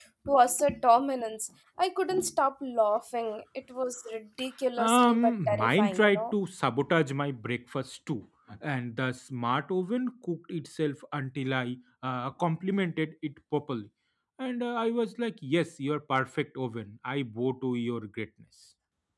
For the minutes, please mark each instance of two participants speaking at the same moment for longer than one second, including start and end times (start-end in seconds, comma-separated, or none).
4.8-6.3